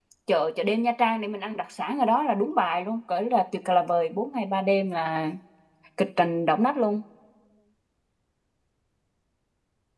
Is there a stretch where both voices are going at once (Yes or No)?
No